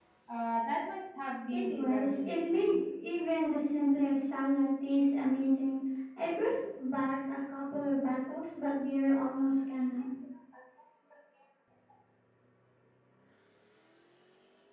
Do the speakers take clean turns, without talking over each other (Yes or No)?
No